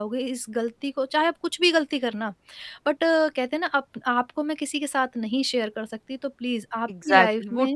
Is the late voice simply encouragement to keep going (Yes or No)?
No